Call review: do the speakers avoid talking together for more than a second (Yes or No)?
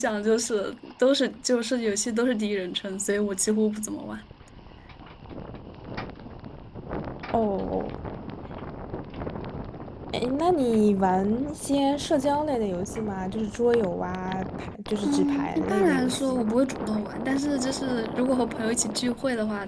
No